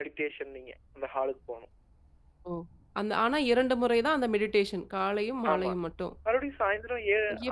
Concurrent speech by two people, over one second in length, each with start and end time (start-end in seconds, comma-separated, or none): none